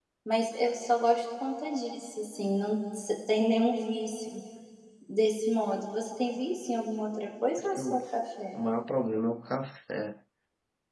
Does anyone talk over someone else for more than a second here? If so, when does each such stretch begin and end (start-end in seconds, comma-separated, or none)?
none